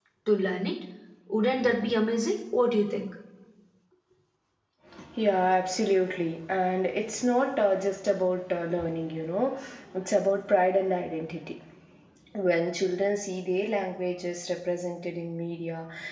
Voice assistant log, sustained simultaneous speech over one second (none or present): none